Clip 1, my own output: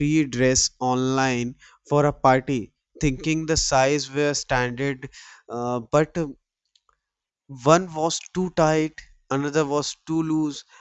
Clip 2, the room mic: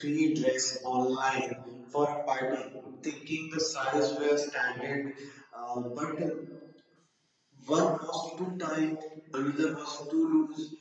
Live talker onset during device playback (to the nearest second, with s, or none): none